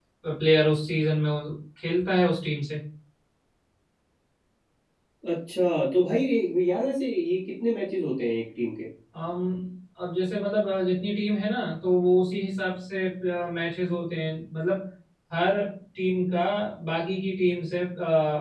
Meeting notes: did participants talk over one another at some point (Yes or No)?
No